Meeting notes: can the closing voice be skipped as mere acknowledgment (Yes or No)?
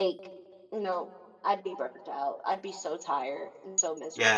No